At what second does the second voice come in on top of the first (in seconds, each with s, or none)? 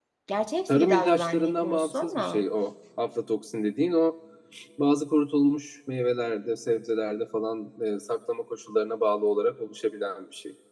0.7 s